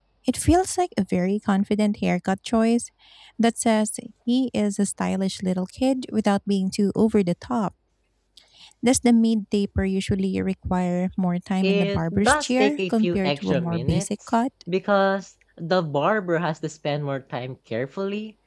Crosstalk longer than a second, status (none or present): present